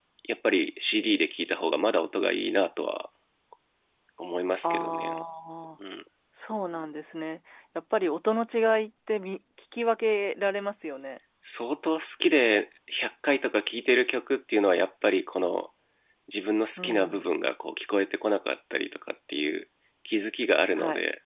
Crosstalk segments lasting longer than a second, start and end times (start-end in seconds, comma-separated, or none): none